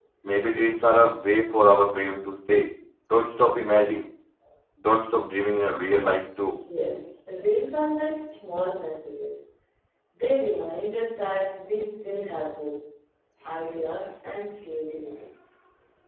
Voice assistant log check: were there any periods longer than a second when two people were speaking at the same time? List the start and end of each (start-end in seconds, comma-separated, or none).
none